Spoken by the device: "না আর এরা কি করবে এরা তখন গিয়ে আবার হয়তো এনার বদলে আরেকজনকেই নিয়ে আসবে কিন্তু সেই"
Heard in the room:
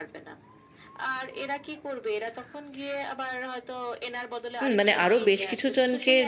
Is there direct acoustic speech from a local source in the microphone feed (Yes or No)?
Yes